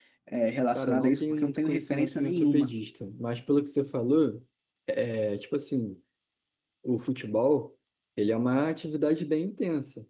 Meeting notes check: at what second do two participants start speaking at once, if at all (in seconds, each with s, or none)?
0.8 s